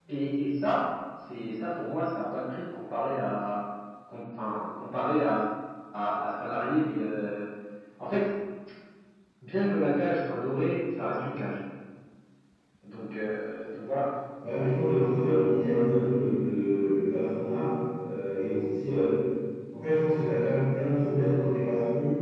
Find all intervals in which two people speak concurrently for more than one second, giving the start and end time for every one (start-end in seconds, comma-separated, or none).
none